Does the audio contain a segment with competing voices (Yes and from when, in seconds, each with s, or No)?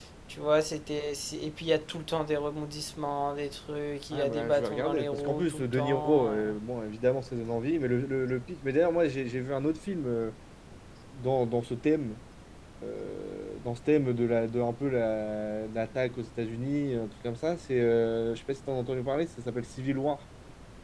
Yes, from 4.1 s